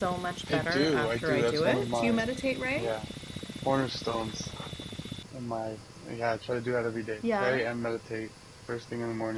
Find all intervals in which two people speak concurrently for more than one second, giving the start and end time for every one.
0.5-2.2

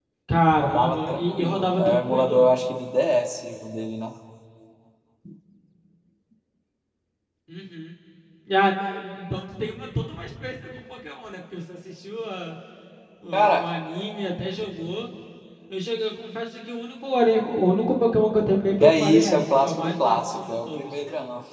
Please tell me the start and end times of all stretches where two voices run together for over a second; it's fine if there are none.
0.6-2.5, 18.8-20.9

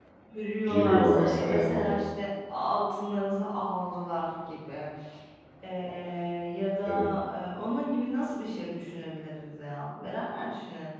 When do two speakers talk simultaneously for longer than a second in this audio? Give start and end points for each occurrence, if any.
0.6-2.0

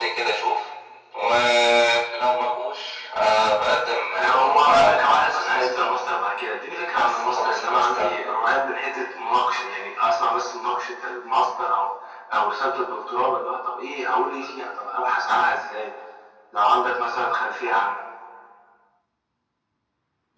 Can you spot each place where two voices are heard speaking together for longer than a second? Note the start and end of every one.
4.1-5.8, 6.9-8.4

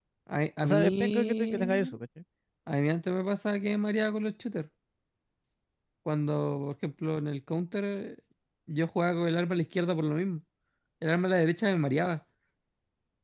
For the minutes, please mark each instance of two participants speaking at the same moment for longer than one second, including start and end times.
0.6-1.9

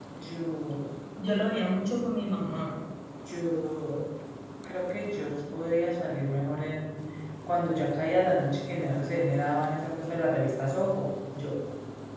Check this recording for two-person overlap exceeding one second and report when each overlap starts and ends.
none

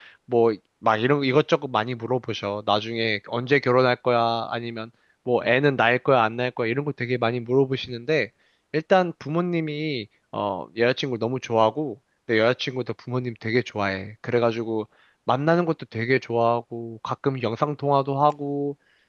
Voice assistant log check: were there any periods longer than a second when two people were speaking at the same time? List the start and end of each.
none

